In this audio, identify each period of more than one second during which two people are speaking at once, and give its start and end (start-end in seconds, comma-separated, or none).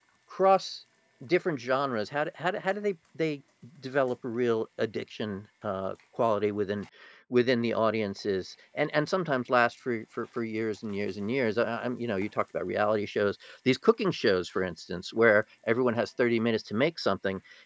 none